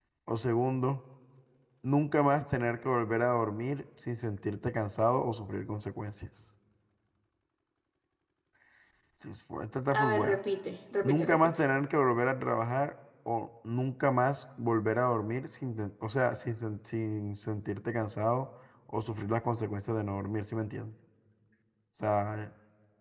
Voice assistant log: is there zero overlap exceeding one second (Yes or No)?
Yes